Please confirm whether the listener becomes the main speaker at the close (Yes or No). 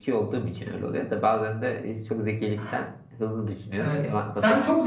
Yes